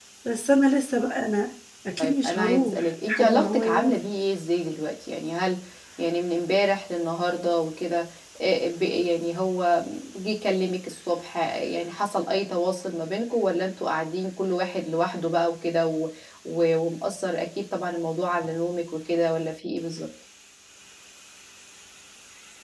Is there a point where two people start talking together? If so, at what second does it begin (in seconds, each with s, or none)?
2.0 s